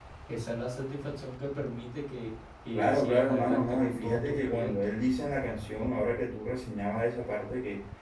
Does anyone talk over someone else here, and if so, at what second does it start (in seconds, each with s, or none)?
2.7 s